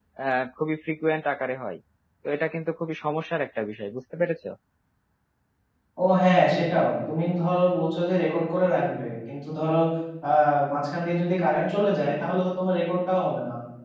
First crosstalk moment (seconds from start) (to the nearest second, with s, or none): none